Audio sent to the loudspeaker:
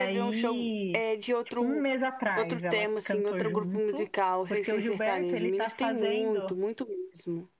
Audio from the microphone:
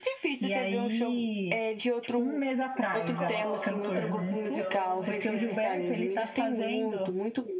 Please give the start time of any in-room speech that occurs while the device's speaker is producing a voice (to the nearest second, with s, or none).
3 s